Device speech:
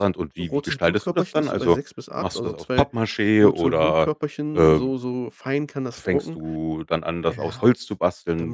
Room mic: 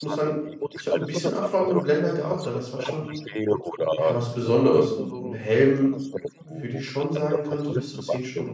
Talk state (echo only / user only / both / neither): both